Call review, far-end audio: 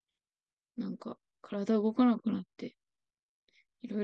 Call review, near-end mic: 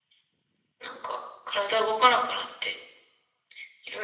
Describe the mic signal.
echo only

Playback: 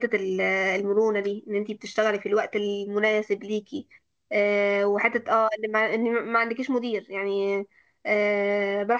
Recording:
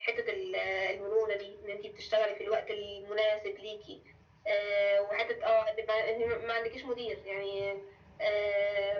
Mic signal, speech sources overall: echo only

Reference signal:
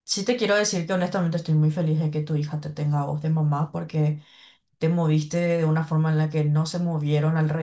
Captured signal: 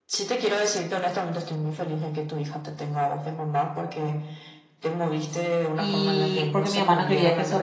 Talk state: both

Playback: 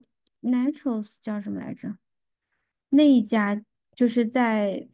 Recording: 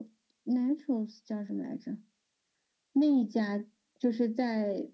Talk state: echo only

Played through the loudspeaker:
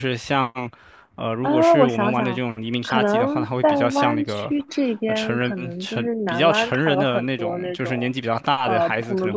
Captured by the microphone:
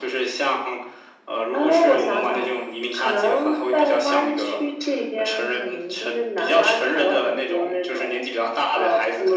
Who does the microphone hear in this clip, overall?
echo only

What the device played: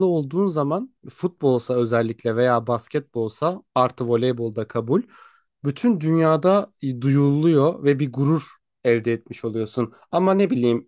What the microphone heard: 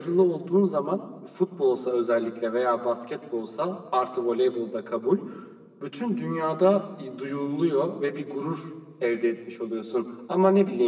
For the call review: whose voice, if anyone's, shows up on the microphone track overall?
echo only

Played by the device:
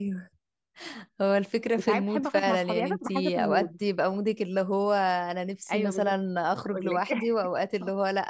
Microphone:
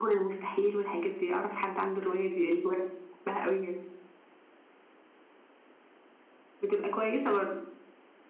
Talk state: user only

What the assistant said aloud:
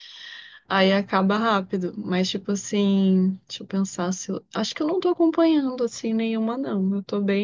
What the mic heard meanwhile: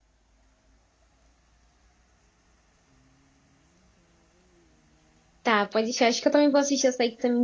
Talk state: user only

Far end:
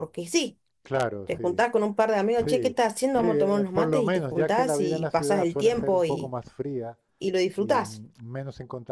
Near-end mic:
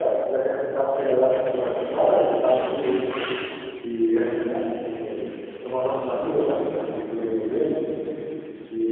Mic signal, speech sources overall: user only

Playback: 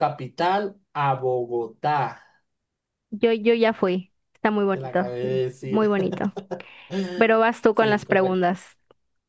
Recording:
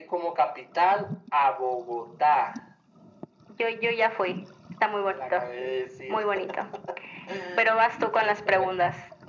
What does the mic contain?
echo only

